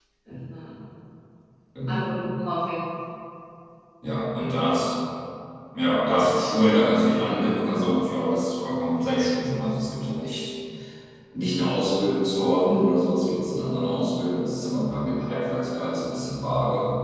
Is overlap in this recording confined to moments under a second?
Yes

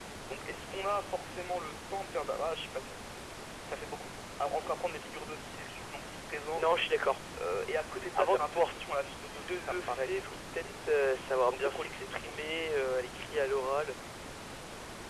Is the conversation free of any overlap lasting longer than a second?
No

